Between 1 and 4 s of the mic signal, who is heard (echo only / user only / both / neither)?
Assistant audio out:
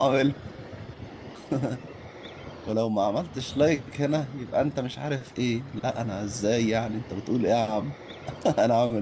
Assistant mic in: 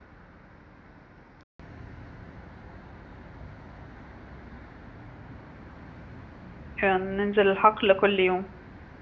neither